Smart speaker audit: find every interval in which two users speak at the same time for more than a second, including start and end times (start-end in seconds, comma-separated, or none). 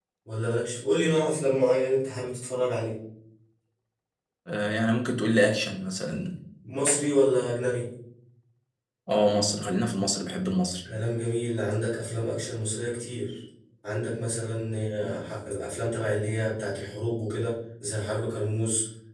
none